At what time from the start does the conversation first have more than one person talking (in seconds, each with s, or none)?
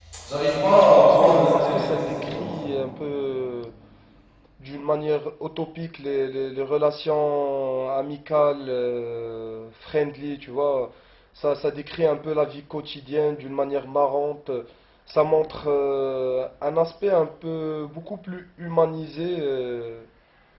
0.7 s